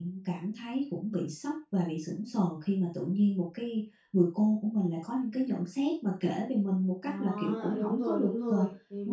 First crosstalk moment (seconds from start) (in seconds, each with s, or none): 7.0 s